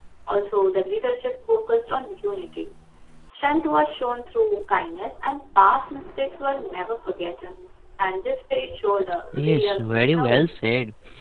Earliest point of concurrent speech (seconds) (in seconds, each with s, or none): 9.3 s